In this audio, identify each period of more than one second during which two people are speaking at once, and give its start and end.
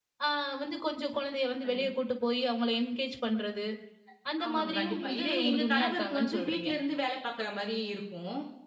4.5-6.7

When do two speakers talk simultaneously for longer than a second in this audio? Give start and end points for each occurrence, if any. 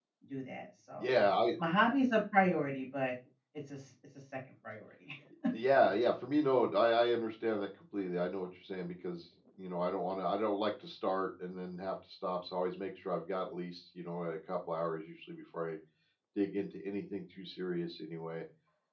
none

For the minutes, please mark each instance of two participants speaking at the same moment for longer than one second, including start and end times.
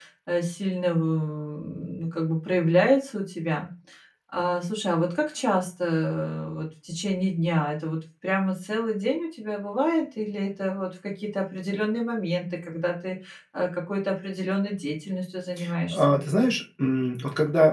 none

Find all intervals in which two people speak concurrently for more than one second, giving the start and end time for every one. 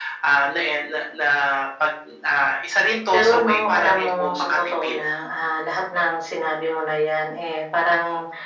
3.1-5.0

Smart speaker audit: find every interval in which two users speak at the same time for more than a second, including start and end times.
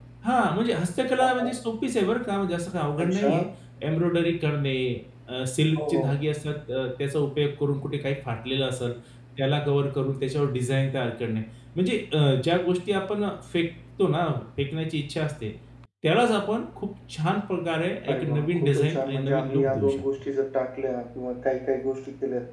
18.1-20.0

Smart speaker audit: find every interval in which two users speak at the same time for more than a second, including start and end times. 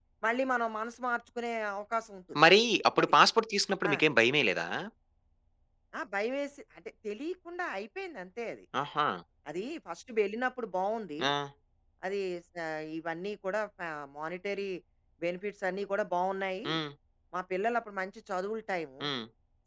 none

